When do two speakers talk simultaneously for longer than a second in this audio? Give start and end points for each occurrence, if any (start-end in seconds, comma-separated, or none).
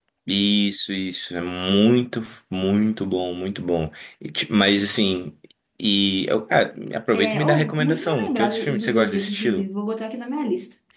7.1-9.6